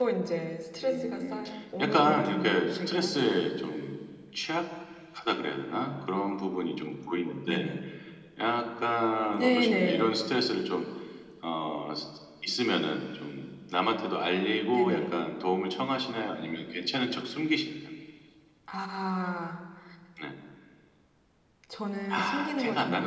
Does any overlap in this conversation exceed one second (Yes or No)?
Yes